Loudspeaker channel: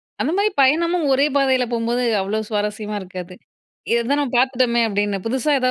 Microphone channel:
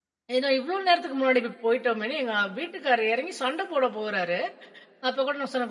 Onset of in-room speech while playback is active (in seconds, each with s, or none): 0.4 s